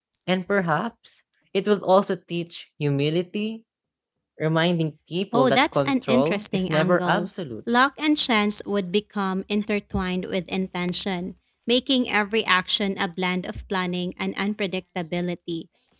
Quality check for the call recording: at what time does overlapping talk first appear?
5.3 s

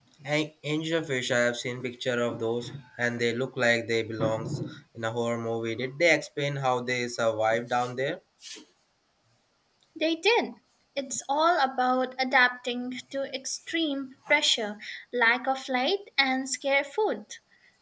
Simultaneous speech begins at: none

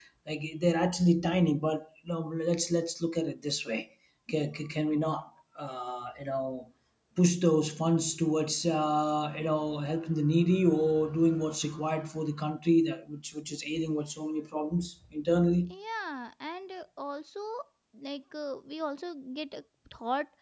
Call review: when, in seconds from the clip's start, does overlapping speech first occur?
none

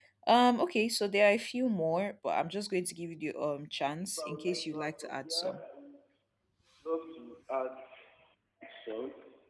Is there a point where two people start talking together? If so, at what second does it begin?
4.2 s

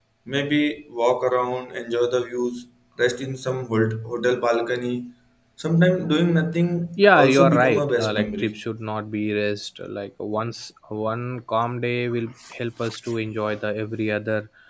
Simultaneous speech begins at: 7.0 s

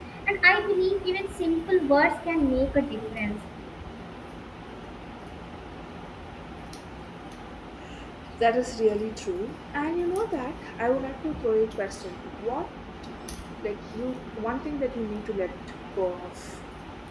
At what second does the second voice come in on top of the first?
none

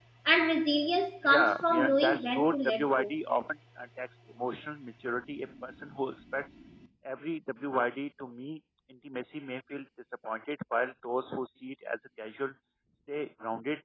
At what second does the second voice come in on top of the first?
1.2 s

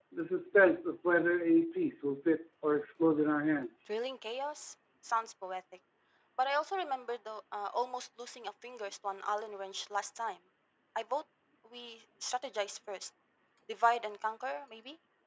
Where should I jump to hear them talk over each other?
none

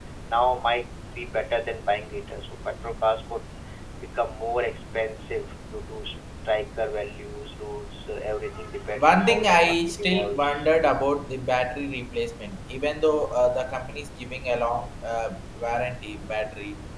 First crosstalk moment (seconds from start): 9.0 s

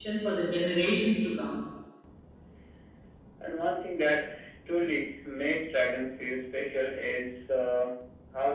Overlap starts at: none

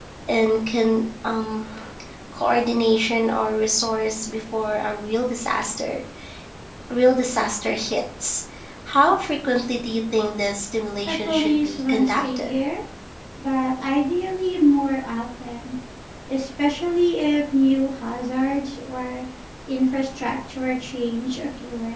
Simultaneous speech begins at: 11.1 s

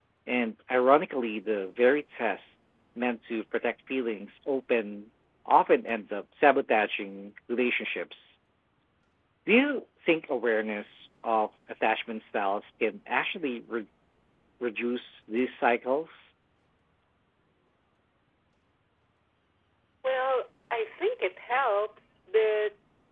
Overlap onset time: none

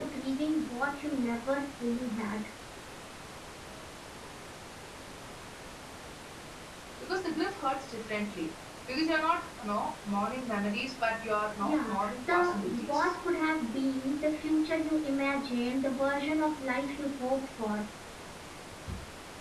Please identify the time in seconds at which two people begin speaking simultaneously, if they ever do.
11.6 s

